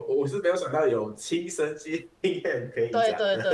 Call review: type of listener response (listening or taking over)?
taking over